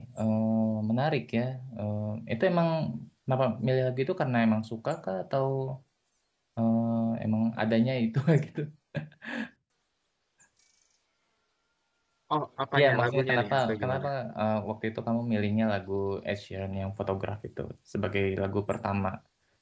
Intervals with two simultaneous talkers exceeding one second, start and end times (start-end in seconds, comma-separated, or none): 12.8-14.1